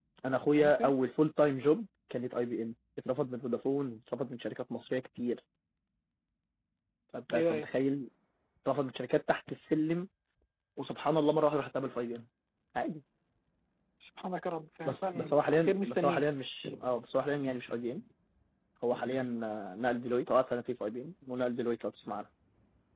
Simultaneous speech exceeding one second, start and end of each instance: 14.8-16.2

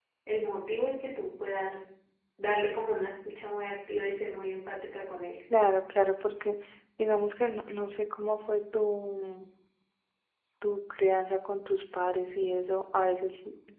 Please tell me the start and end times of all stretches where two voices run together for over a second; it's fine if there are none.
none

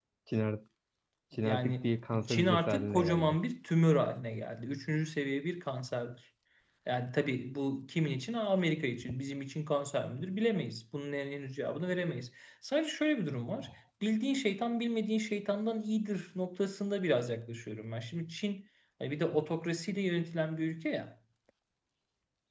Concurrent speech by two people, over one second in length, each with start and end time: 1.4-3.4

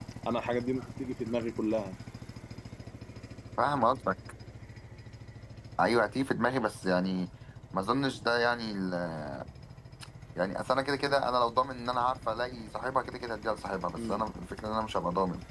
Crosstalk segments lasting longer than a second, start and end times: none

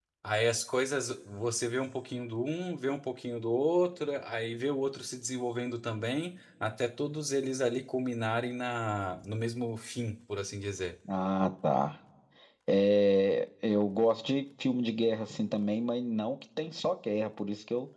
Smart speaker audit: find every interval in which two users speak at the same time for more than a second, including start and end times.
none

